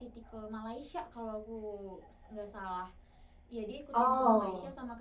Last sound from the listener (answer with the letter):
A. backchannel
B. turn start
A